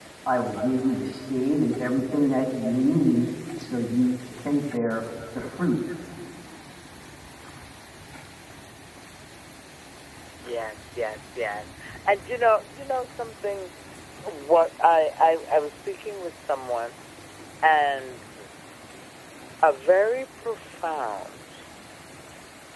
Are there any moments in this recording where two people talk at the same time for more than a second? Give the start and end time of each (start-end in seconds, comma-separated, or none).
none